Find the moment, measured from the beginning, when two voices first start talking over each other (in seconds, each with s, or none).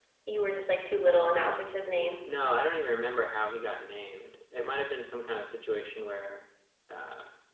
none